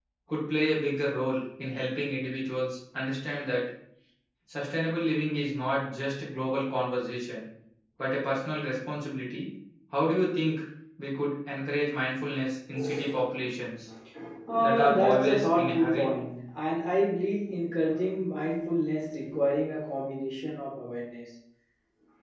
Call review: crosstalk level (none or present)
present